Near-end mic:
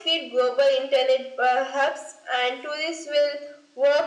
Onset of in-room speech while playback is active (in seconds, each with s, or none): none